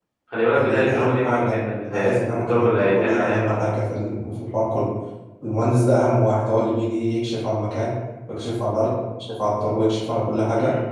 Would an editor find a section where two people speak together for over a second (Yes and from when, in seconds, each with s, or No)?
Yes, from 0.5 s